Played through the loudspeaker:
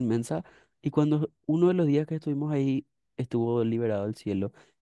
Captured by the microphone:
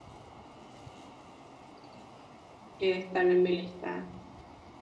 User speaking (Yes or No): Yes